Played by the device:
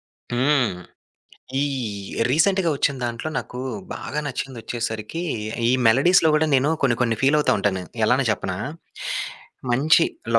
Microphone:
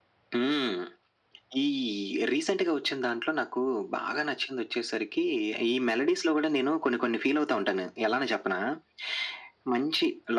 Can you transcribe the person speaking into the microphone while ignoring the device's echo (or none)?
none